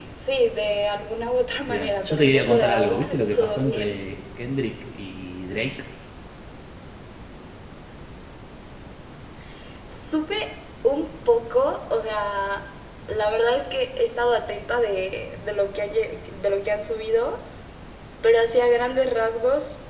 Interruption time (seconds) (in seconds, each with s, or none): 1.7 s